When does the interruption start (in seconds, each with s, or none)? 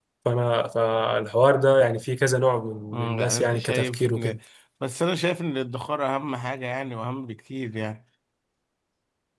2.9 s